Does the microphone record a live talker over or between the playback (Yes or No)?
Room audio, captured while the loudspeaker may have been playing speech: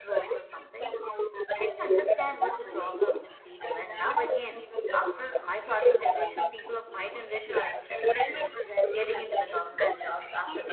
Yes